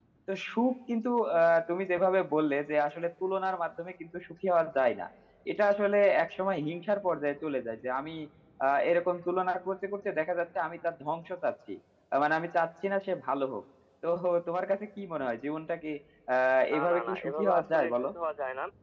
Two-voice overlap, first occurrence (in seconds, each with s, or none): 16.7 s